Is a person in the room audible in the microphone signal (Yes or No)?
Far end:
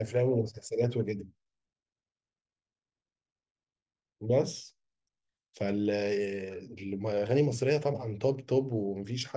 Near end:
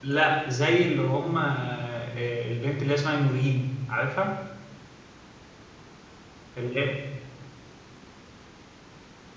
Yes